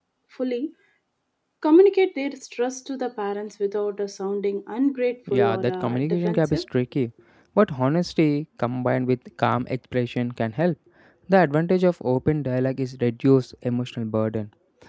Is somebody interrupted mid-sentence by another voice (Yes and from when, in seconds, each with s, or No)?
Yes, from 5.3 s